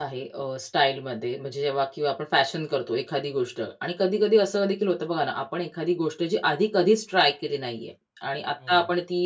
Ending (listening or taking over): listening